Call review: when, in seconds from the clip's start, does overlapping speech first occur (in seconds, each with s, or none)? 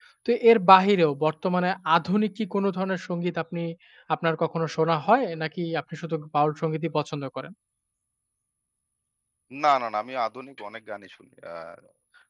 none